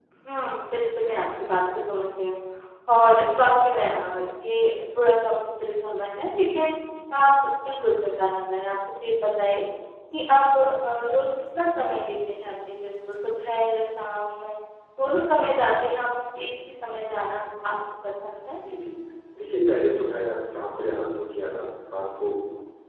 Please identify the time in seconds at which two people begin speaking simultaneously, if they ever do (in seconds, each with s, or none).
none